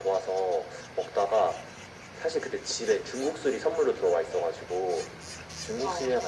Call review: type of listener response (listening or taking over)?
listening